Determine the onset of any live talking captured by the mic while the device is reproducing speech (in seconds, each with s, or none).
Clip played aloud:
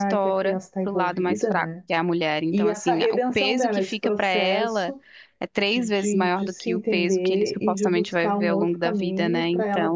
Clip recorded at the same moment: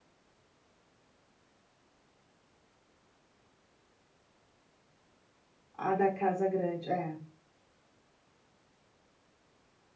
5.7 s